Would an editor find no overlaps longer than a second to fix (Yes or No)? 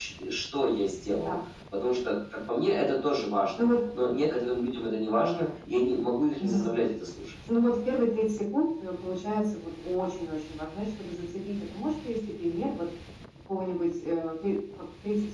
Yes